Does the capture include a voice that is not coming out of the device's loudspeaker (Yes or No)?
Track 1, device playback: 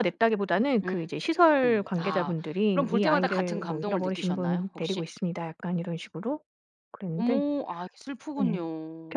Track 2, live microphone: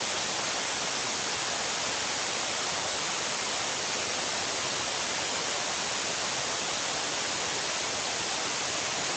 No